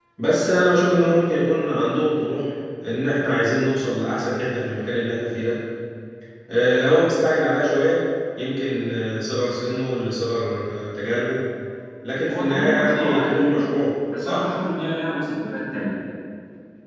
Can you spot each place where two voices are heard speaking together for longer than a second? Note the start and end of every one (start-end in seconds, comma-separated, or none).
12.3-13.6